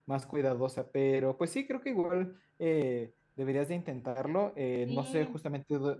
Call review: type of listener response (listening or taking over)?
listening